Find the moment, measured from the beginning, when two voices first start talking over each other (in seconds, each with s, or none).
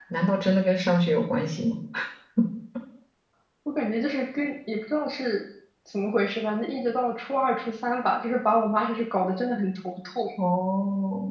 none